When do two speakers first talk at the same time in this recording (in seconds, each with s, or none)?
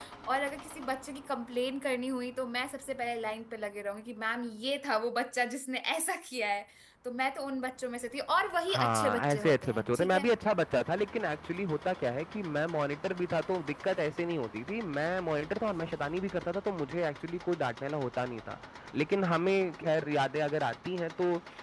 8.7 s